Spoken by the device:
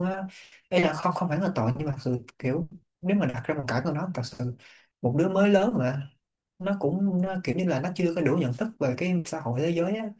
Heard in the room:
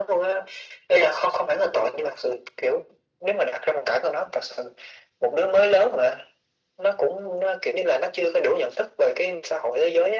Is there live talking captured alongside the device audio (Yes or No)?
No